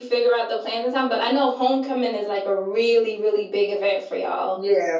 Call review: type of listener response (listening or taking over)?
taking over